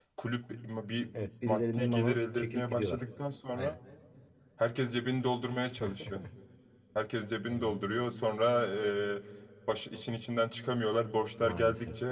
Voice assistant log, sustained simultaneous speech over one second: present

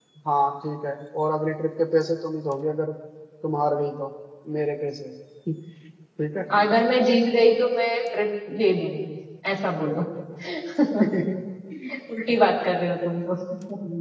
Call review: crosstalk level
none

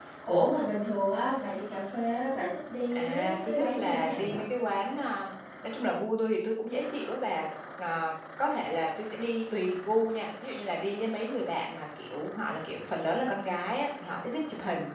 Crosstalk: present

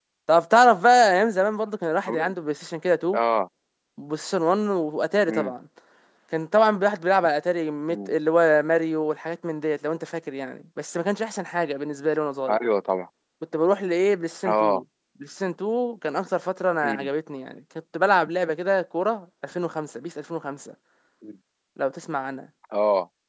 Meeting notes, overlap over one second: none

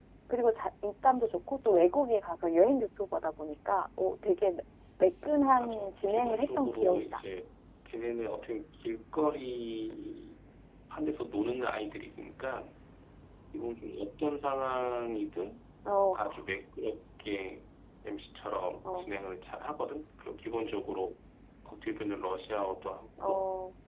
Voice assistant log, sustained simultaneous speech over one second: present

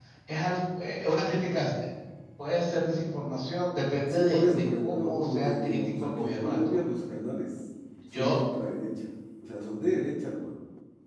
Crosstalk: present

